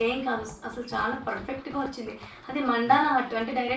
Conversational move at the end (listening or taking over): listening